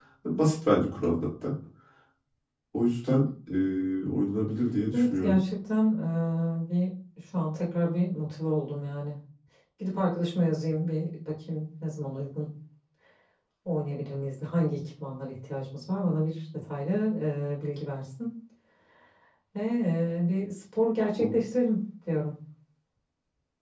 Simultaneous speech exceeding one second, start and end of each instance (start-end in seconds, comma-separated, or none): none